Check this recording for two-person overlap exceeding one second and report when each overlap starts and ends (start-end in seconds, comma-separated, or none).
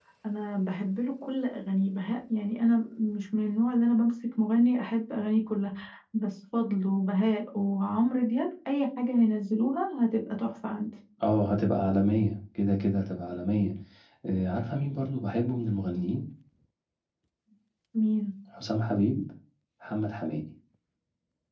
none